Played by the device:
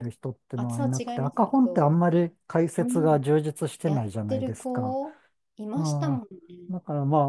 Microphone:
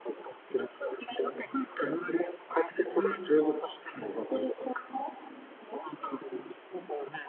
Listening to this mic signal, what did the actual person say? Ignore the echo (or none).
うん